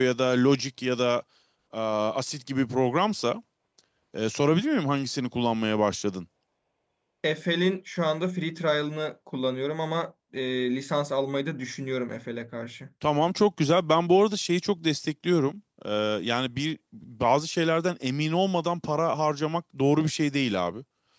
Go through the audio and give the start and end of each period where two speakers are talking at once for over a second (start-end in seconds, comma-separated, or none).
none